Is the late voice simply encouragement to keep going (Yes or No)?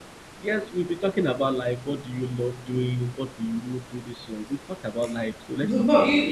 No